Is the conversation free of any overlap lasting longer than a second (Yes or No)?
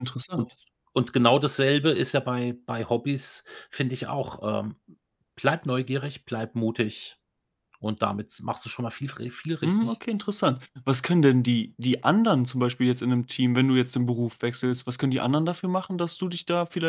Yes